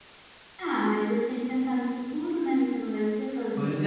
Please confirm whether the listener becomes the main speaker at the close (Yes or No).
Yes